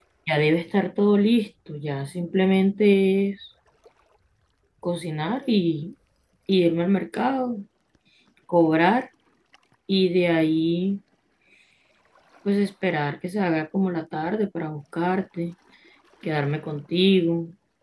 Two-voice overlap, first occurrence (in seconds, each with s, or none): none